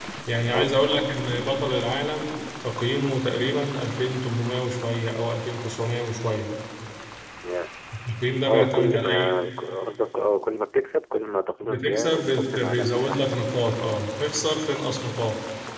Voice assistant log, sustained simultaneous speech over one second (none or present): present